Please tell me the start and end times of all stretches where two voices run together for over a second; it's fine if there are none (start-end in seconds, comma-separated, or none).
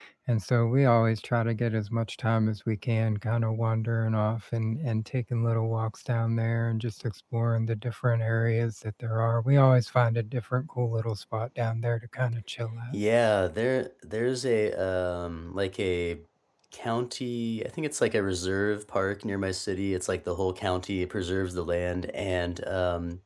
none